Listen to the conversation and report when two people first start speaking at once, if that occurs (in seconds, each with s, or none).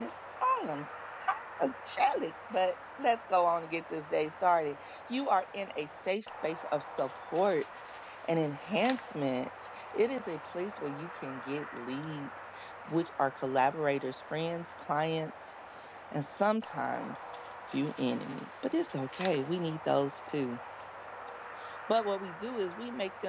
none